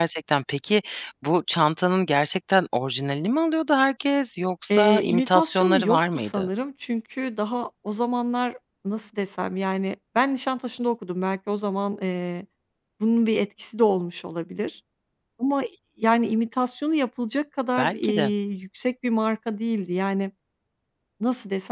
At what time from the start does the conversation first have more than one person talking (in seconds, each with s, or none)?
4.7 s